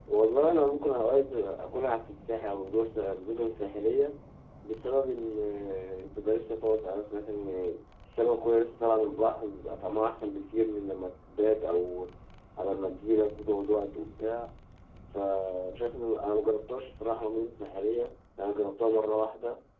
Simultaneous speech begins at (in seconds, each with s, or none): none